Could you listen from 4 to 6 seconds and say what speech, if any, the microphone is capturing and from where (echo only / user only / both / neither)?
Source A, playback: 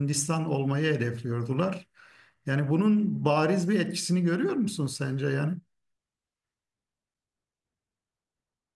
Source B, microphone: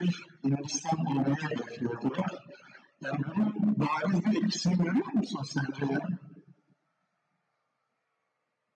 echo only